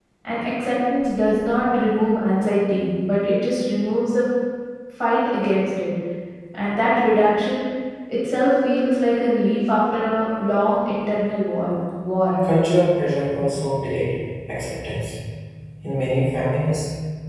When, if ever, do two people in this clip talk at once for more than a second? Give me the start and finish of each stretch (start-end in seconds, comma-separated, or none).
none